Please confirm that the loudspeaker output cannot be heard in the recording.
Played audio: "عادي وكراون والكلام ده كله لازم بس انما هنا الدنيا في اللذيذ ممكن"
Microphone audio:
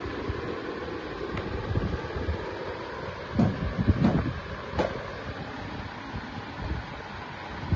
Yes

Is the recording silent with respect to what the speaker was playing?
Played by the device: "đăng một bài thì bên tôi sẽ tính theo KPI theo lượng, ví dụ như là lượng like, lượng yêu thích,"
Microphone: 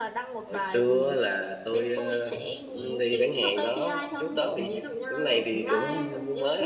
No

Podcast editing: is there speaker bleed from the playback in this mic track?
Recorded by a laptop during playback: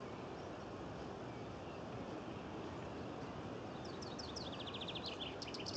No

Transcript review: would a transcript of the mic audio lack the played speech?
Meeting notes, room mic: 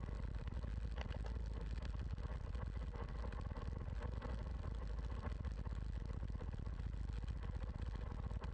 Yes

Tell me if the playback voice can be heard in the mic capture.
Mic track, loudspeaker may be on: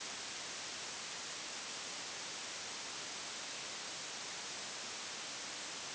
No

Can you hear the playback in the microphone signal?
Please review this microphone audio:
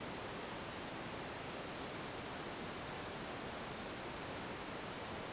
No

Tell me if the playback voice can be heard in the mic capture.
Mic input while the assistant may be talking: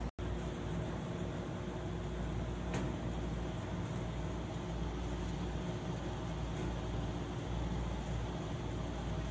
No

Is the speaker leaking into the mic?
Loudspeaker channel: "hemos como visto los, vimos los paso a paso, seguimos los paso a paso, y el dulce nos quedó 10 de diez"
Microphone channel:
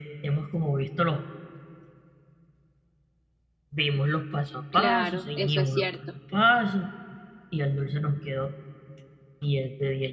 Yes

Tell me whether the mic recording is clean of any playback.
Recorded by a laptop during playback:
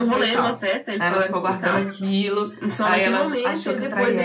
No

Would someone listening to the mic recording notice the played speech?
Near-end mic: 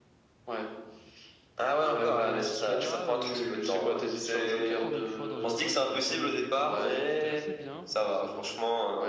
Yes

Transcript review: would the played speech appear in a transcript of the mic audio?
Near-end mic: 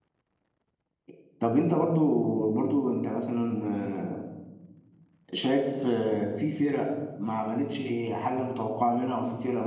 No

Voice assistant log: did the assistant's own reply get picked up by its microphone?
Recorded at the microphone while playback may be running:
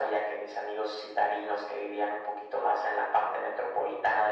Yes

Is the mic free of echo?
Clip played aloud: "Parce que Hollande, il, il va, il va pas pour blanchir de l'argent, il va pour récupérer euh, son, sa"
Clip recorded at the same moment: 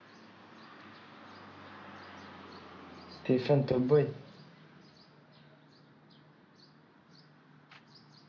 Yes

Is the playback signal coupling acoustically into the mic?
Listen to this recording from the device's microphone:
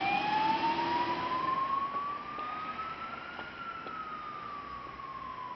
No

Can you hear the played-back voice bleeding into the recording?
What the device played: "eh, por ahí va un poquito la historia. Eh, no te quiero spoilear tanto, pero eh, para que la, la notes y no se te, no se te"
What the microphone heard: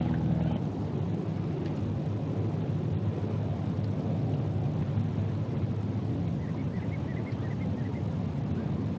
No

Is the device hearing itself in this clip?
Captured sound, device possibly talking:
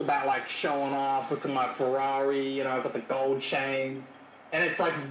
Yes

